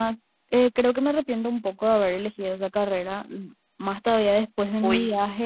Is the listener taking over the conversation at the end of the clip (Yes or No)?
No